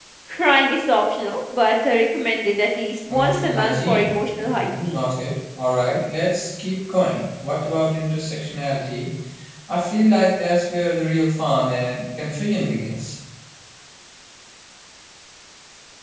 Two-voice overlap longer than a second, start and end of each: 3.1-5.0

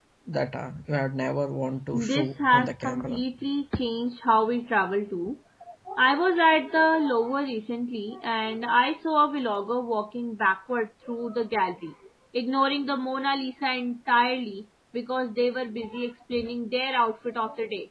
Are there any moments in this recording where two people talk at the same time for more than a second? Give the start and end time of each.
1.9-3.2

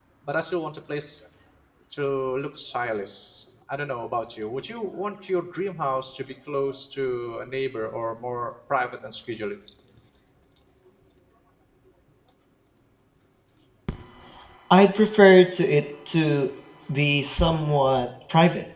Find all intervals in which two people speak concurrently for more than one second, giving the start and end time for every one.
none

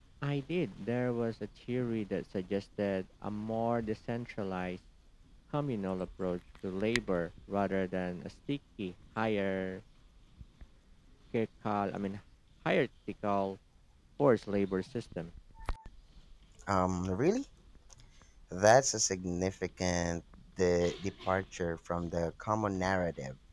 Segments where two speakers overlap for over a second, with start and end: none

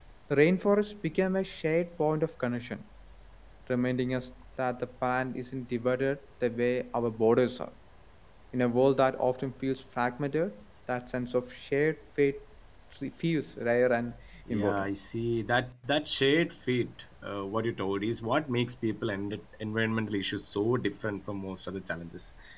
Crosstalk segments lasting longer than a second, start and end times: none

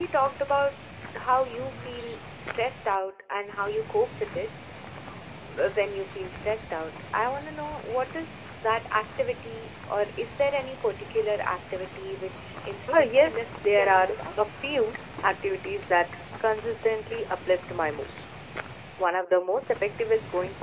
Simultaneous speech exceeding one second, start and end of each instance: 12.9-14.1

